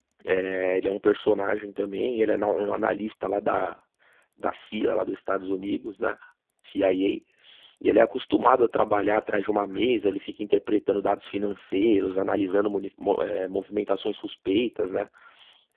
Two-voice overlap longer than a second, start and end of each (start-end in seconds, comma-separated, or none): none